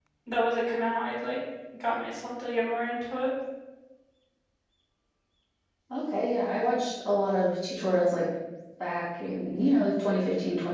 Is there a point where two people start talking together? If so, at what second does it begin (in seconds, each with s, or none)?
none